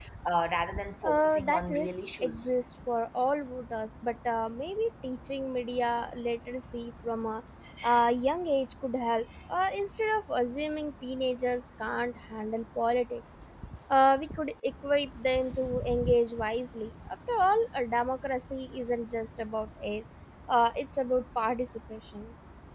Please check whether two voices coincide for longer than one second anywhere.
Yes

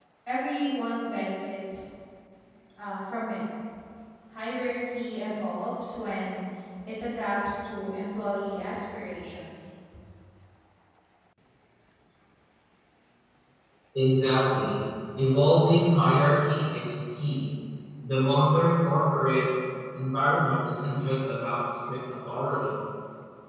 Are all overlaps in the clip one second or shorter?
Yes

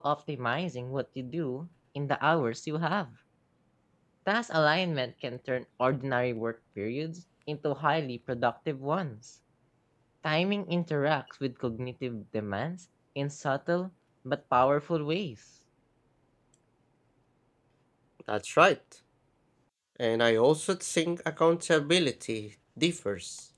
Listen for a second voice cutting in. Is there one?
No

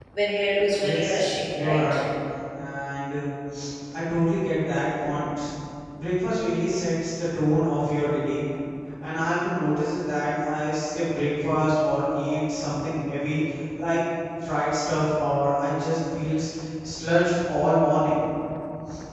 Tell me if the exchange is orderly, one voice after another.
No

